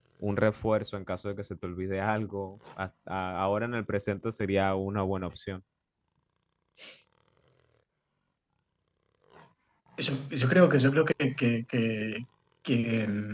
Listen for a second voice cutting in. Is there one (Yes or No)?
No